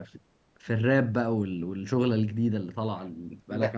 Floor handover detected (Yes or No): Yes